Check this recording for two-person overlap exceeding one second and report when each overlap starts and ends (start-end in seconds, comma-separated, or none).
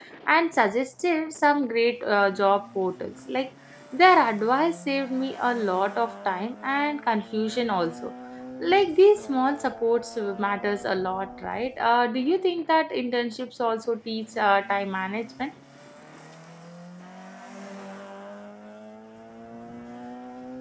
none